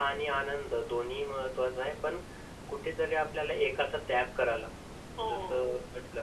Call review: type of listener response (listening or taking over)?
listening